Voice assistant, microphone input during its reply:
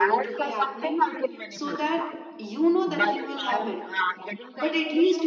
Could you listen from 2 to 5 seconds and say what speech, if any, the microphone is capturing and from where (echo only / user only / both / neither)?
both